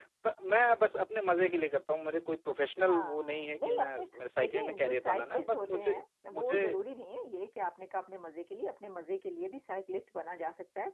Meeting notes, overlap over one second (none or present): present